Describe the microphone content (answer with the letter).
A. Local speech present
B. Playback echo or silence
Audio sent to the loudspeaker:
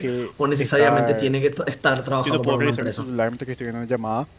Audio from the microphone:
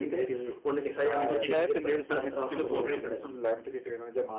A